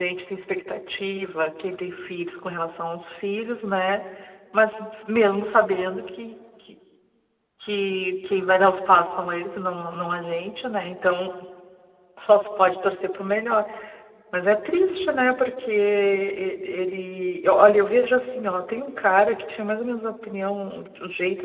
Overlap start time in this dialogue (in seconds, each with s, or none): none